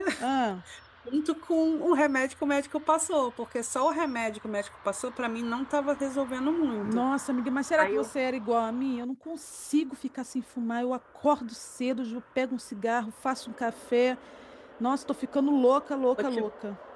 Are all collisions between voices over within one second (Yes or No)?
Yes